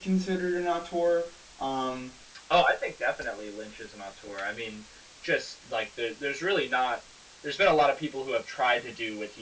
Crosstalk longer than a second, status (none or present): none